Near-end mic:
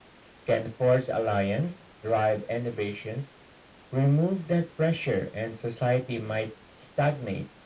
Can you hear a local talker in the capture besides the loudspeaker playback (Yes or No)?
No